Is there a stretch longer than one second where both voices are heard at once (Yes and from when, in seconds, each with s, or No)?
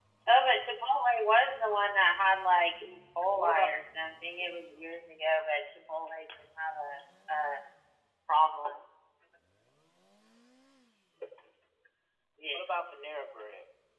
No